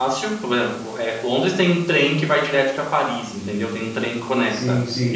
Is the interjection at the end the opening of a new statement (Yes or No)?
Yes